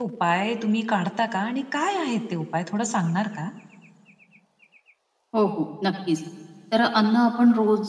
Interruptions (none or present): none